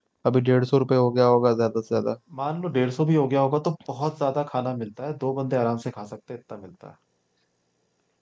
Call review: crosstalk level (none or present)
none